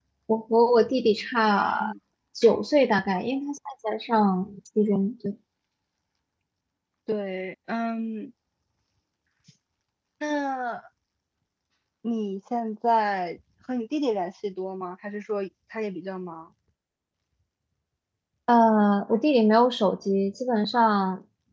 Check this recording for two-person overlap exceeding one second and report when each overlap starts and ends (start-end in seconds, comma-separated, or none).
none